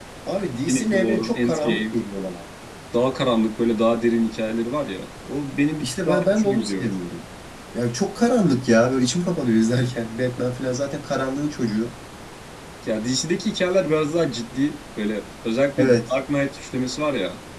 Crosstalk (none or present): present